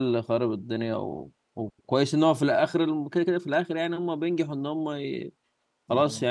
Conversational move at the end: listening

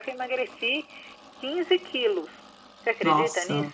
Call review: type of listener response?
taking over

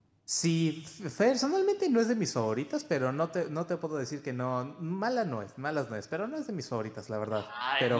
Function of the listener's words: taking over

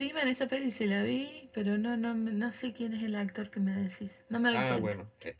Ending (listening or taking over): taking over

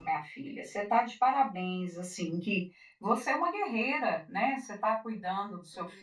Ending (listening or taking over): listening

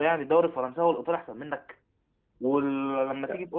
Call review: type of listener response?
listening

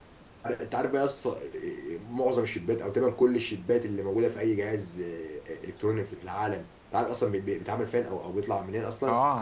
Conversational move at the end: taking over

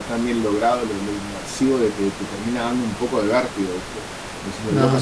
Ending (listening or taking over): listening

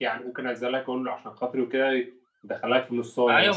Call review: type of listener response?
taking over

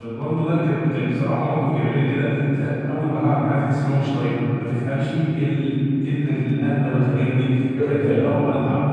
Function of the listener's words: listening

